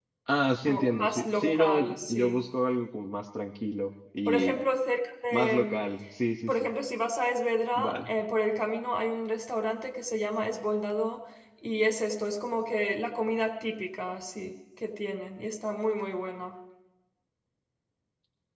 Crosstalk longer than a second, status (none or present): present